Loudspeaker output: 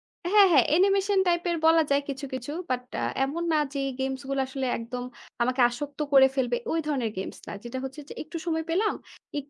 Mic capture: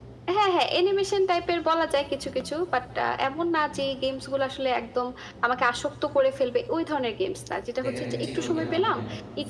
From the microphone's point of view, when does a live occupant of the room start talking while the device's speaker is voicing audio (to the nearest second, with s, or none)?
8 s